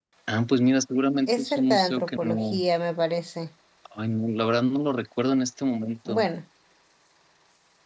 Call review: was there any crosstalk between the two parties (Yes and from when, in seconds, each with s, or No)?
Yes, from 1.3 s